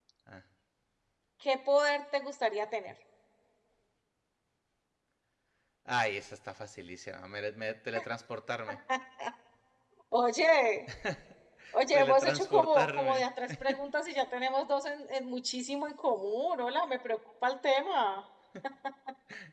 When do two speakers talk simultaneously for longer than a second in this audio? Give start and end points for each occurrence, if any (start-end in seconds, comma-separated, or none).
11.9-13.2